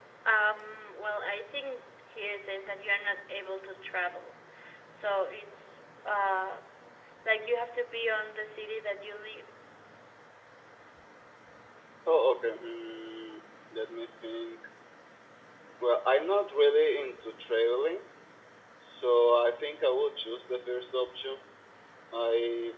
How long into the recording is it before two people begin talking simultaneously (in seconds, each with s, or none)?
none